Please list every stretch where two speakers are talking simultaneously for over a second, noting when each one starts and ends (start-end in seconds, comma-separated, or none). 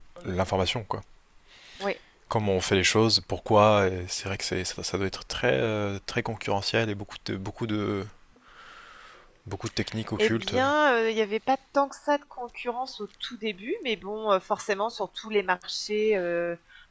none